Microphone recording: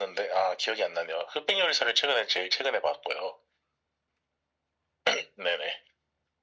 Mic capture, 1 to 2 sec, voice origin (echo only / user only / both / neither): echo only